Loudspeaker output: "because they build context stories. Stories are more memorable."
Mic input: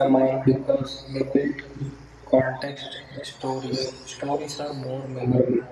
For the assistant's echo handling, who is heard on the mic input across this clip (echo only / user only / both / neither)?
echo only